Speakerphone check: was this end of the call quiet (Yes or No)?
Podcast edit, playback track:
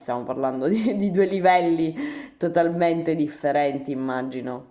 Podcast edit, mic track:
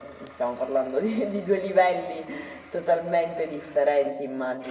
Yes